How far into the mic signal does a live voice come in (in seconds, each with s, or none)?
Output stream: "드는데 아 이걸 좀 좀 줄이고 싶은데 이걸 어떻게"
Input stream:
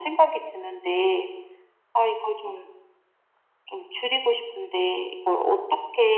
none